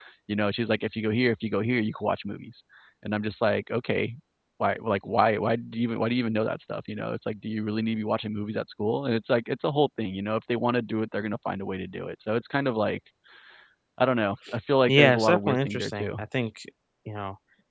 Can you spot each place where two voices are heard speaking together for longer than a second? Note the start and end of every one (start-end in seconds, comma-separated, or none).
14.9-16.1